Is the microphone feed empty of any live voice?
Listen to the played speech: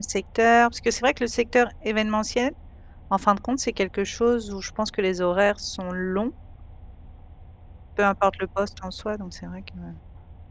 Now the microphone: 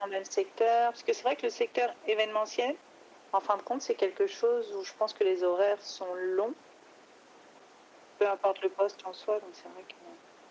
Yes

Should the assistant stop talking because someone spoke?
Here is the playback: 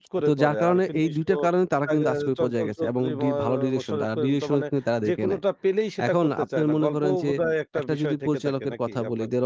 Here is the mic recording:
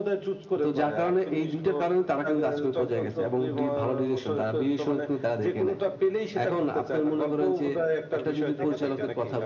Yes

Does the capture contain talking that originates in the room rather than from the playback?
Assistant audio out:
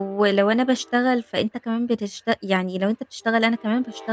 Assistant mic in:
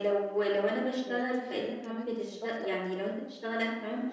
Yes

